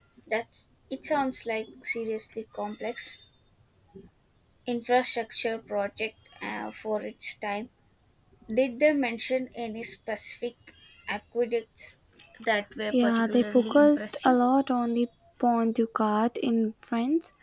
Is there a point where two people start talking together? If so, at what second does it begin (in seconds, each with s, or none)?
12.9 s